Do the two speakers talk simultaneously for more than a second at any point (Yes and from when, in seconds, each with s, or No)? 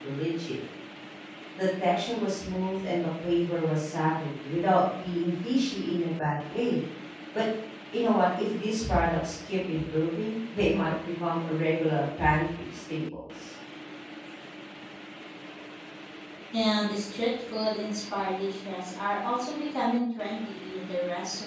No